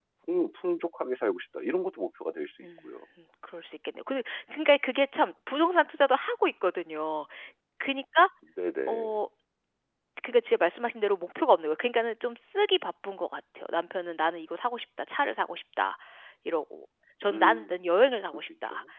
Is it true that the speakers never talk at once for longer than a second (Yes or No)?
Yes